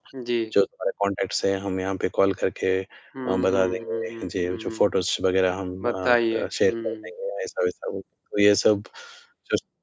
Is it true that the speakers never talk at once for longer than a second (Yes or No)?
No